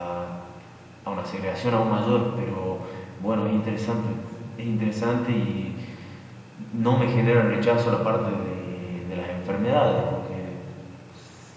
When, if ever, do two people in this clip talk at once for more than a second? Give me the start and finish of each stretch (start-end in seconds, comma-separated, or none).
none